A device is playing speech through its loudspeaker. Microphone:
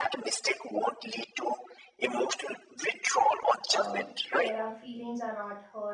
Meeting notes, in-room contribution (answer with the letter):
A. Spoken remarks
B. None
A